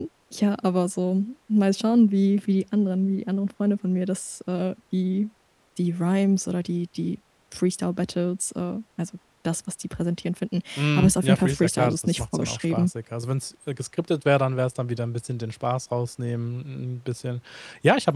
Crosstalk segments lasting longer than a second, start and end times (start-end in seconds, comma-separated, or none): 10.8-12.9